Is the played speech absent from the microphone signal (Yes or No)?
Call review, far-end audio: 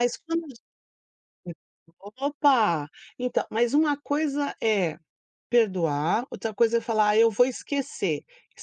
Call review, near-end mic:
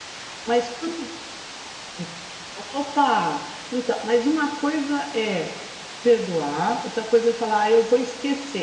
No